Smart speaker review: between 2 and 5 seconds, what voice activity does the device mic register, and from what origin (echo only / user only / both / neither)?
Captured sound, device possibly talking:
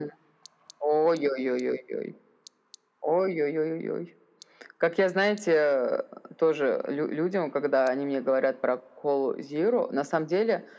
echo only